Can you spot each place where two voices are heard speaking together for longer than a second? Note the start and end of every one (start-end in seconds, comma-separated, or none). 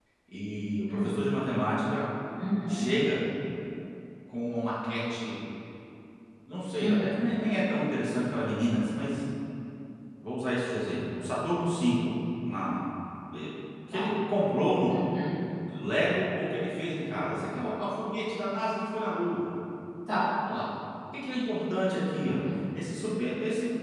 none